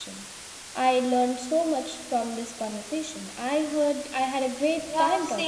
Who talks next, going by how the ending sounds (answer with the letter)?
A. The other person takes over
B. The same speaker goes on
A